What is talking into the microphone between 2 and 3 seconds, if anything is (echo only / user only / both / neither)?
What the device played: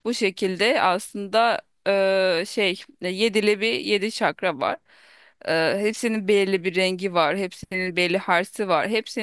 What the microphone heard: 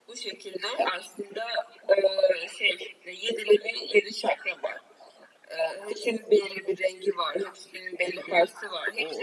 echo only